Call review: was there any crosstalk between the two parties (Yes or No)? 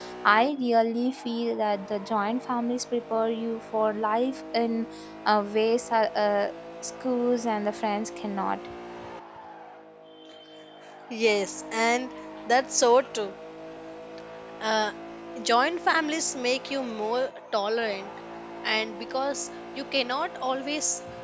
No